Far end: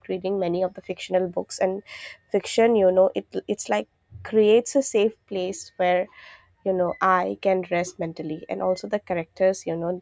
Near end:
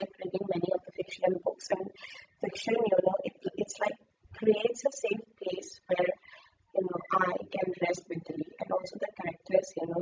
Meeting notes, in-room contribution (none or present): none